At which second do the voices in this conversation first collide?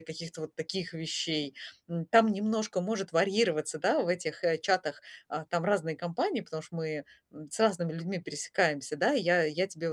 none

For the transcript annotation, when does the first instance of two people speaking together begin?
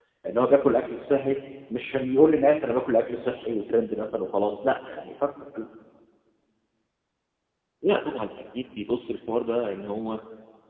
none

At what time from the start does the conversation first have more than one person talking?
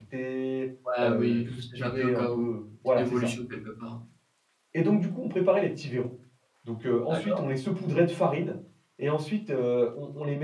1 s

